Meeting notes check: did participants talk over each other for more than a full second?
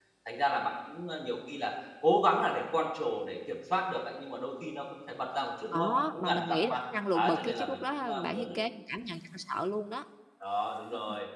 Yes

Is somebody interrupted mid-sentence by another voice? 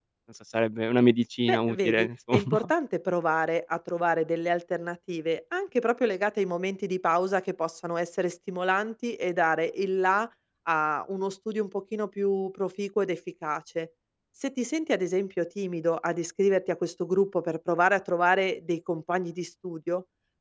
Yes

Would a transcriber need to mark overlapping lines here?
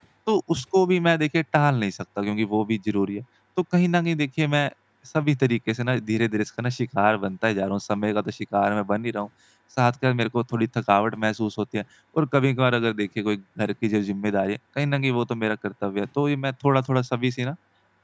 No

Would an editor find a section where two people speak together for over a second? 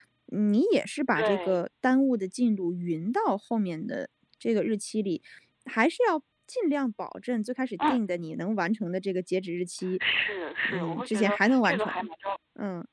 Yes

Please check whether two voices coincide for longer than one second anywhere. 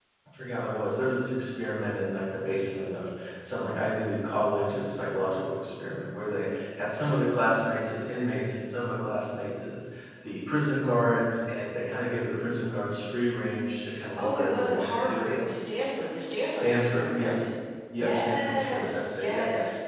Yes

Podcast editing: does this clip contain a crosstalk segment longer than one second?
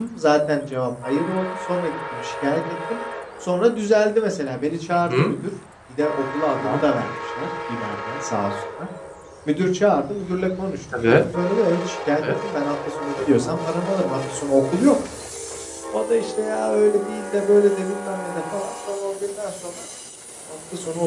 No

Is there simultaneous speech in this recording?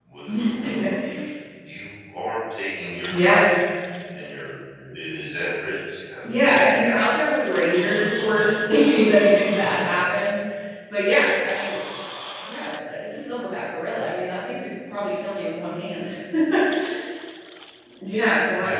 Yes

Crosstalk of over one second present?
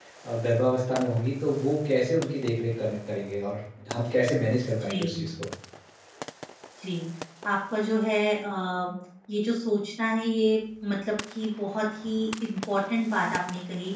No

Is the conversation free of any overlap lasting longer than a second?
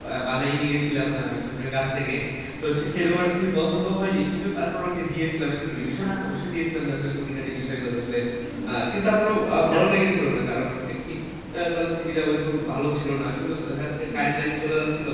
Yes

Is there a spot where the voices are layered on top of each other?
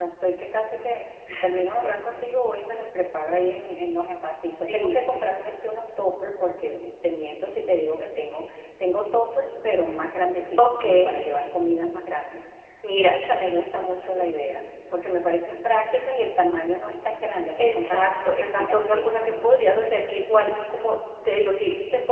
Yes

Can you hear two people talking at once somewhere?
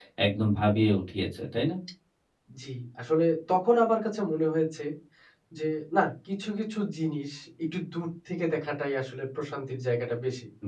No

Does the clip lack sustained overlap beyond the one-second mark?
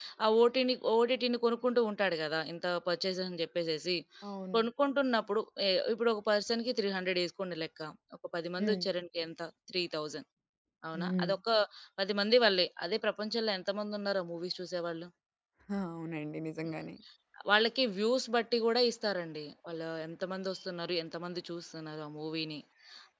Yes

